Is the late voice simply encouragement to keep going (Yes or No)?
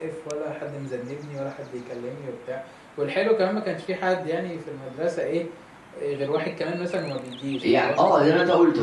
No